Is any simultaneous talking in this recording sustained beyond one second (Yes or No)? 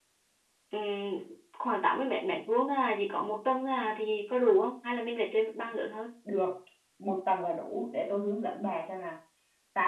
No